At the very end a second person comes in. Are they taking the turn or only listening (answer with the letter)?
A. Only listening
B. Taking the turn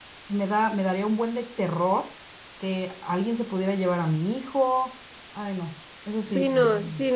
B